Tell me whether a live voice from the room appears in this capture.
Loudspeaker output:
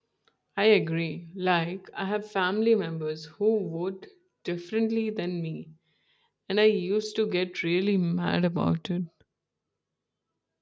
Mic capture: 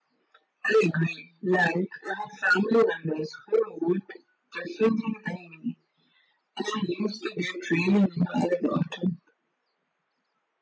No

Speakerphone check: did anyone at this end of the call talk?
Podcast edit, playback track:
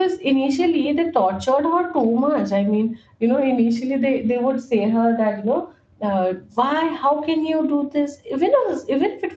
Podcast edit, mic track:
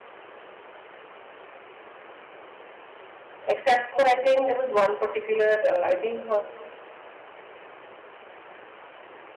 Yes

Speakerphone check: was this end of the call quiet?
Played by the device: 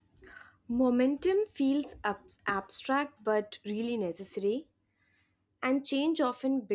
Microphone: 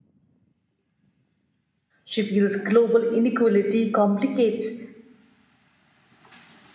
No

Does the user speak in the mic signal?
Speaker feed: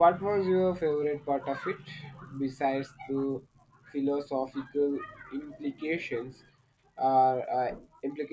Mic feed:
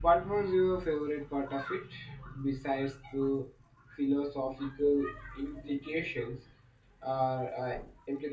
No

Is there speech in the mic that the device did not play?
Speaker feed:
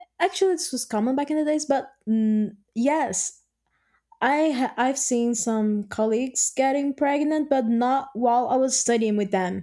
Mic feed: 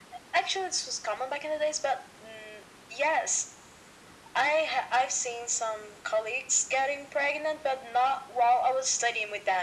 No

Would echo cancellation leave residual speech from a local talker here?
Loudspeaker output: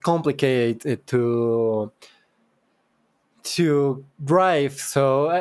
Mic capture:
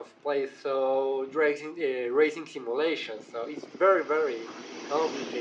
Yes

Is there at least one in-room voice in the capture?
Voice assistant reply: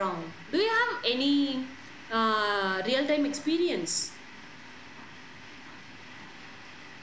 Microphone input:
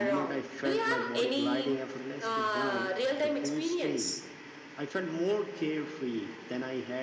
Yes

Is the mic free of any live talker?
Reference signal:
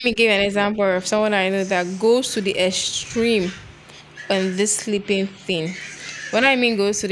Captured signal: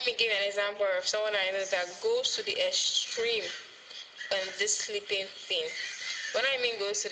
Yes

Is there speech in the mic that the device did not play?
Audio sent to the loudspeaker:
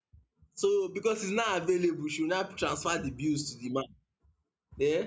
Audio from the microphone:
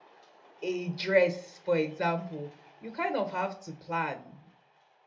Yes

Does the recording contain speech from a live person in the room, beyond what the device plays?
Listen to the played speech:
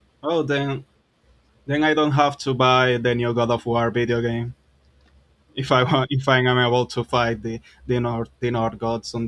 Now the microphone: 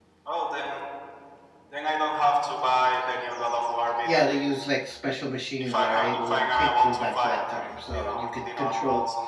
Yes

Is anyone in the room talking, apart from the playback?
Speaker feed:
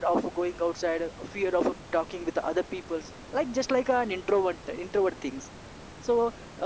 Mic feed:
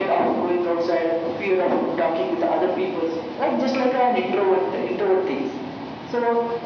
No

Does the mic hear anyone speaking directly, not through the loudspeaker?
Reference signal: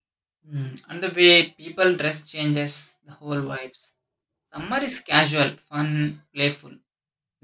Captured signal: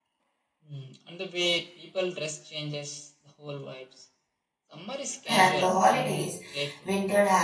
Yes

